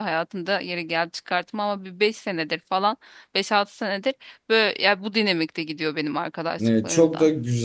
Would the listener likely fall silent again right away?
No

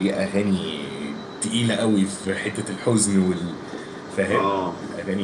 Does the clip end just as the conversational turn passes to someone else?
Yes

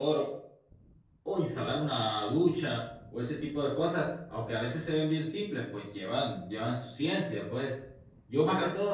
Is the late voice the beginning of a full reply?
No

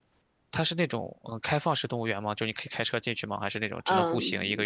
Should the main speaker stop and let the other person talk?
Yes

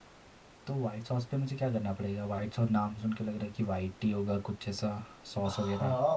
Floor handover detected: Yes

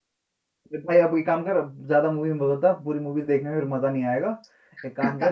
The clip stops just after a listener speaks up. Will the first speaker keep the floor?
Yes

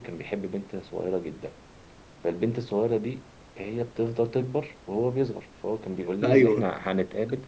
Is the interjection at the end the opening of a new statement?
No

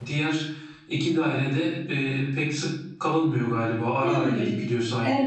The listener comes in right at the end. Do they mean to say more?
Yes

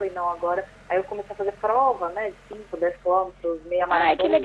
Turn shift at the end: Yes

